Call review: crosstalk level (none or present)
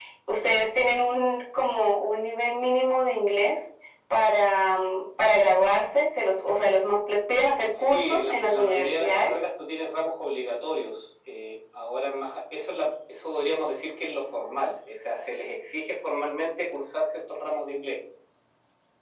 present